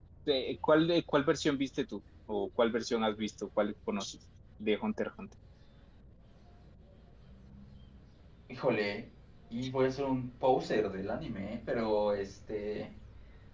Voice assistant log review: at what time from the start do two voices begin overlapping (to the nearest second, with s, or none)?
none